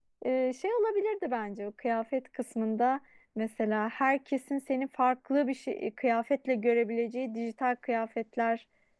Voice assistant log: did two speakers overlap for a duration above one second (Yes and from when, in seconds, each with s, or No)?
No